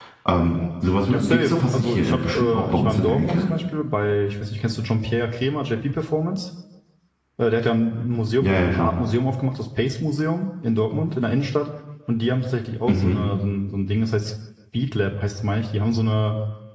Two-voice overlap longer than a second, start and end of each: 1.1-3.5

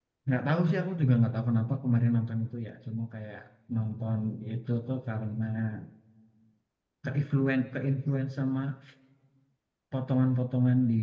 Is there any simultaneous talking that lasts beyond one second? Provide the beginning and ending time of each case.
none

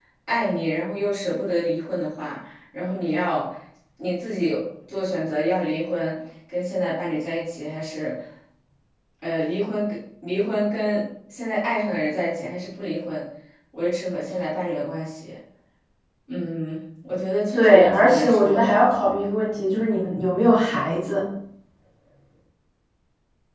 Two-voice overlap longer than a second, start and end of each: 17.5-18.8

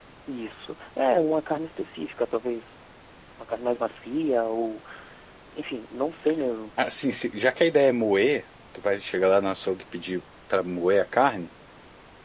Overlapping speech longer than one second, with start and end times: none

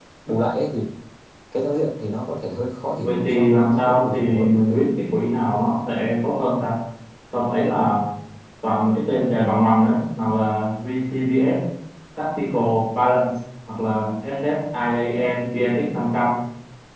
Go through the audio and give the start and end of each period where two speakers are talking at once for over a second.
3.0-4.9

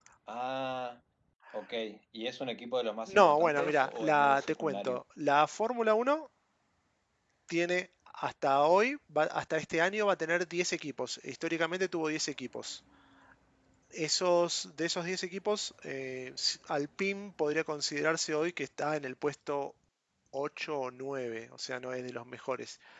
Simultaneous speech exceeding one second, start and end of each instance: 3.1-5.0

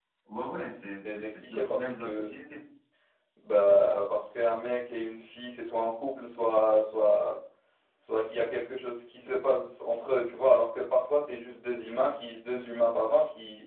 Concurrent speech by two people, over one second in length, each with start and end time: 1.0-2.3

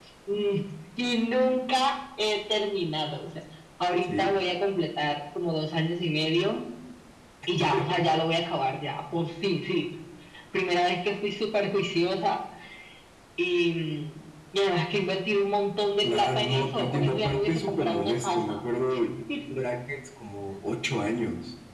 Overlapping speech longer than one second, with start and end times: 16.0-18.6

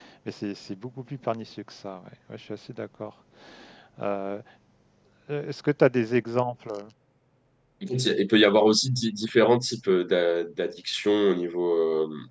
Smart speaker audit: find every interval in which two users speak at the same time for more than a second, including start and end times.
none

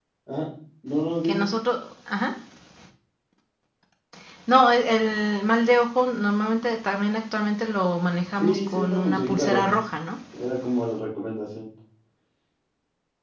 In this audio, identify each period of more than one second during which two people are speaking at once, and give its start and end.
8.4-9.8

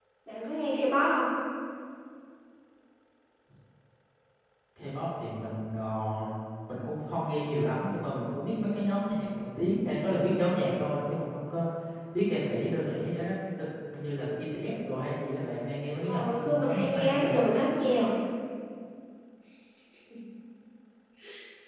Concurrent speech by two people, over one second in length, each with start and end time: 16.1-17.4

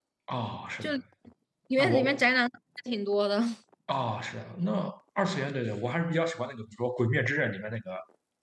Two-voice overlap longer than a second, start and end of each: none

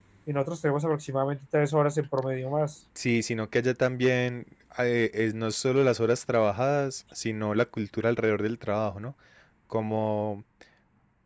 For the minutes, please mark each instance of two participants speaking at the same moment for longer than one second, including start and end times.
none

